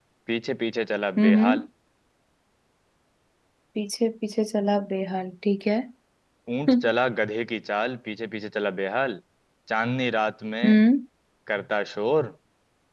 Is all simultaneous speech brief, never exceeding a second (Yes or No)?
Yes